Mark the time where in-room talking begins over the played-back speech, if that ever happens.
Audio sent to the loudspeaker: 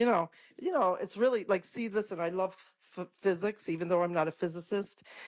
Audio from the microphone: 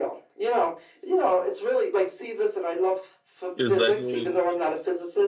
3.6 s

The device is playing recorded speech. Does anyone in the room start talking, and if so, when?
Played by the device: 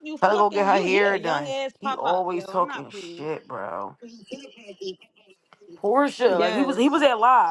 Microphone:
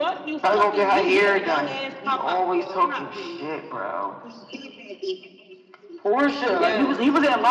none

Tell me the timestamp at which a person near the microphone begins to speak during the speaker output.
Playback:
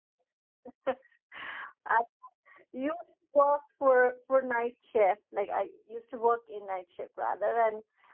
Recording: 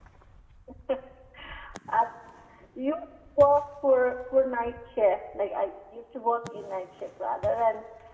none

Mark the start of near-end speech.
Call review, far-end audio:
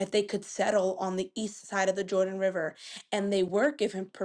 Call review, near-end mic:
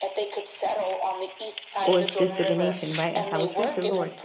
1.8 s

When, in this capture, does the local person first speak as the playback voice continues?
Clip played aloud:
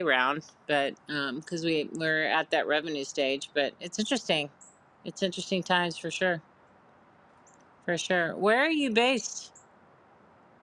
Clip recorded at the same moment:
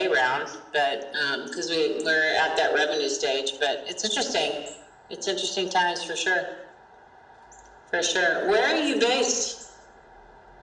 none

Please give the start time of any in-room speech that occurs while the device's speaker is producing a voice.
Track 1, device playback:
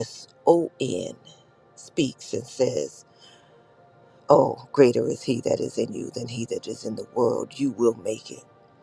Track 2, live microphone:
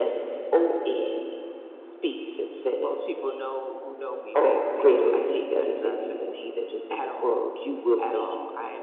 2.8 s

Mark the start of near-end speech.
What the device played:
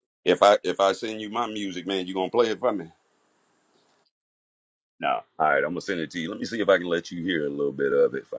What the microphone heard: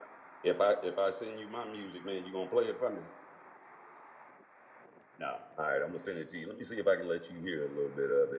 none

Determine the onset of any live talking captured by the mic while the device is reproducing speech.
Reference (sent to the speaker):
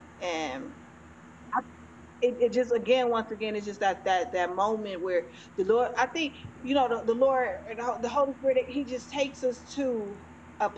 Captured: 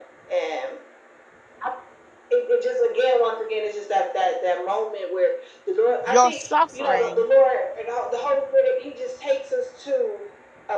6.0 s

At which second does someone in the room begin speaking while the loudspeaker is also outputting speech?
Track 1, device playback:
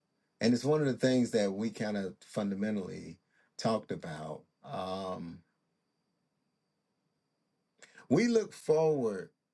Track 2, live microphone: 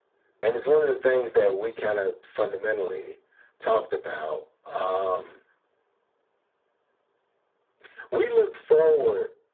none

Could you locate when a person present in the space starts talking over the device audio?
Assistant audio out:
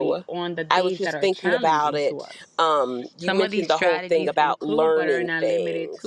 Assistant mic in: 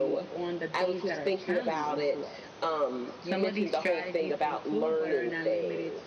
none

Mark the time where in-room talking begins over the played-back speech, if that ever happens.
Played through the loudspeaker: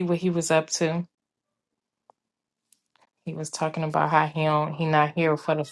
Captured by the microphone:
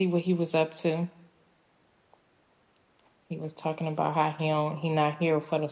none

